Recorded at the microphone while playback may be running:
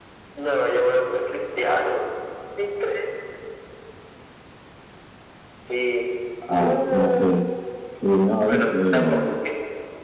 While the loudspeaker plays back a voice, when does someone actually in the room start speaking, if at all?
6.5 s

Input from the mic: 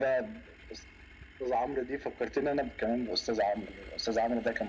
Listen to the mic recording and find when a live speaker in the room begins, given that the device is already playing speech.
none

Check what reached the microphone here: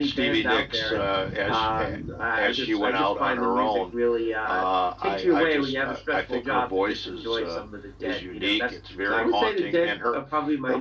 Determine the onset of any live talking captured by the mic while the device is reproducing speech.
none

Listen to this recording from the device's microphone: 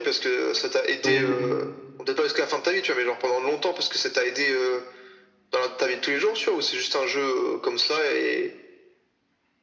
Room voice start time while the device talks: 1.0 s

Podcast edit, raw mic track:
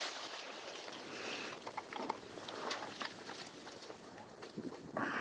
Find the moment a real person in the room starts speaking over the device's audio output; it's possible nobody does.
none

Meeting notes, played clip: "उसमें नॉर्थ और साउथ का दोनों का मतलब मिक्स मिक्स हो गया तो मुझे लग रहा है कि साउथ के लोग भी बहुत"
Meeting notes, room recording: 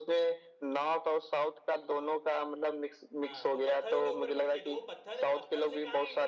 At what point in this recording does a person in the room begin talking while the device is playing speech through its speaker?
3.2 s

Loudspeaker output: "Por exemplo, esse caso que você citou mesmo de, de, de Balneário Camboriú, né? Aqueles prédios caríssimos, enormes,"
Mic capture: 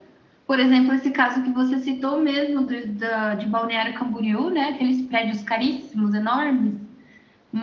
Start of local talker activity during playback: none

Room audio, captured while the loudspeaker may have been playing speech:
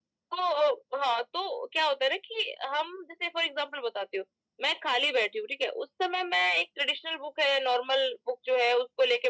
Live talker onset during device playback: none

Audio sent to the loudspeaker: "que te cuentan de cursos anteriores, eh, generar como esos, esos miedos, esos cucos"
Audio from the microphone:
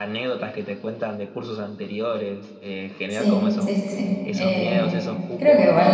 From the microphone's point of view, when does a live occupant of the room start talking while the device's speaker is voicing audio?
3.1 s

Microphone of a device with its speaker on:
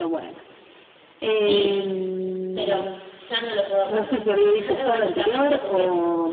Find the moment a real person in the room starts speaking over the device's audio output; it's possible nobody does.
1.2 s

